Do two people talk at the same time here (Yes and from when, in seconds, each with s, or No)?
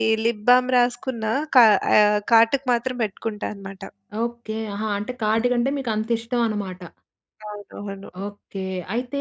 No